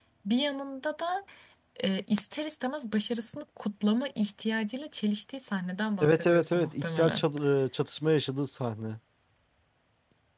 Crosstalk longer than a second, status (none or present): present